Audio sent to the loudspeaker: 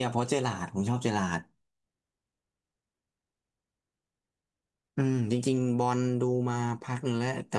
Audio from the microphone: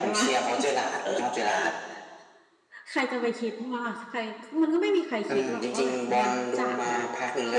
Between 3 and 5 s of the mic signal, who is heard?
user only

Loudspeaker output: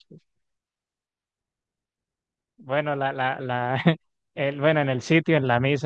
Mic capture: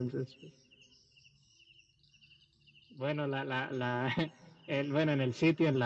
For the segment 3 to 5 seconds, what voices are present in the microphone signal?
echo only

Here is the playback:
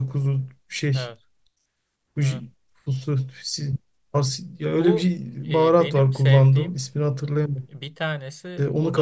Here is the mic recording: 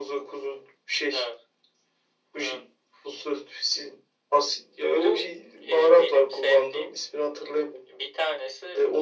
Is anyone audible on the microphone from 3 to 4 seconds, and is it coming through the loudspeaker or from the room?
echo only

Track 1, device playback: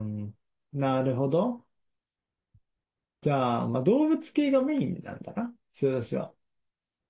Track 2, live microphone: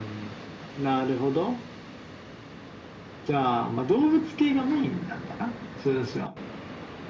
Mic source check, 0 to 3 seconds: echo only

